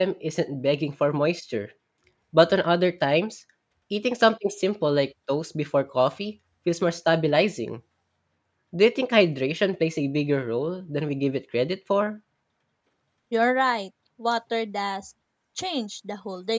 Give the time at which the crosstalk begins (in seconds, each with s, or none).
none